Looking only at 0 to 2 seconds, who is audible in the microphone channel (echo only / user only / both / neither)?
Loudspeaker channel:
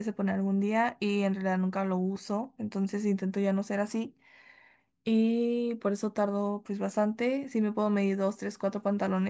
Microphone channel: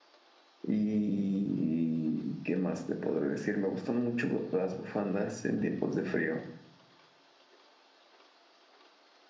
user only